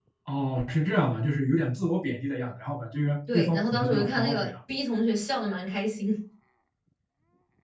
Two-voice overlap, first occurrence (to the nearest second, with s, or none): 3 s